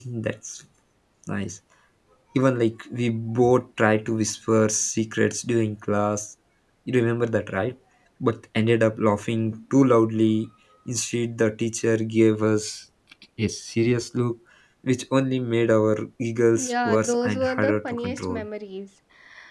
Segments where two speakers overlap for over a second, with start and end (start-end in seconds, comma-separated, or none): 16.5-18.4